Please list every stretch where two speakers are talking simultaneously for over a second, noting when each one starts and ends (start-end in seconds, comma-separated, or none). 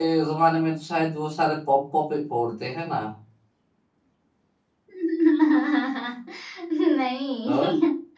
none